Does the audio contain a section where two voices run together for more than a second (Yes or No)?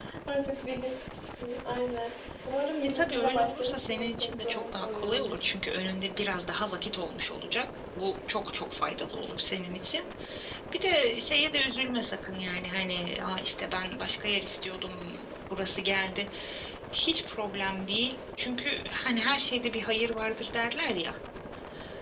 Yes